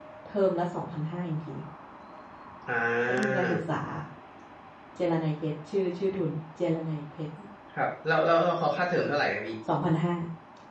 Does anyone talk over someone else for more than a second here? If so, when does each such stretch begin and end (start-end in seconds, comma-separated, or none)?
none